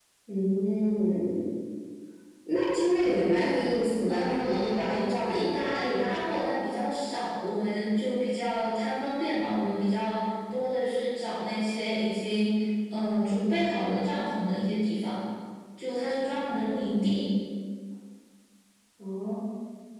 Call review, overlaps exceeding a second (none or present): present